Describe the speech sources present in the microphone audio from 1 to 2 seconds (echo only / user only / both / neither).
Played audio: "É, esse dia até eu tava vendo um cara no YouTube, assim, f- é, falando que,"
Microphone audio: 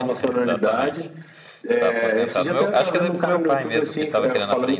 both